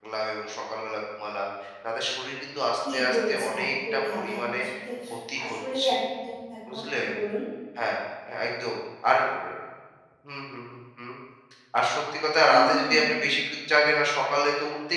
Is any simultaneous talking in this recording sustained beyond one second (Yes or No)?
Yes